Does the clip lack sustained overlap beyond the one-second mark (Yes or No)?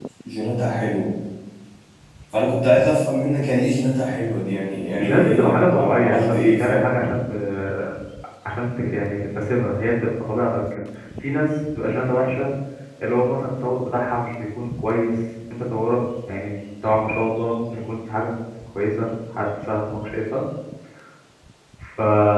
No